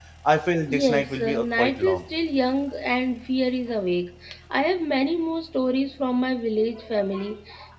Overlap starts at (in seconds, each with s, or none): 0.7 s